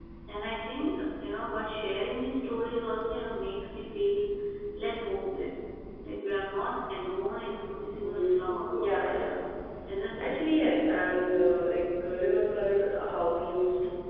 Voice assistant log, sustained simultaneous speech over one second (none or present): present